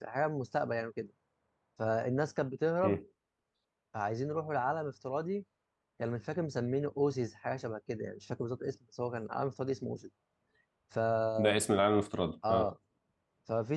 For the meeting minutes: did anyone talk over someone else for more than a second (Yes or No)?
No